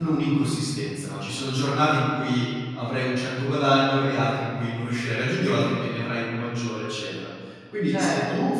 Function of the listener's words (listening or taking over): listening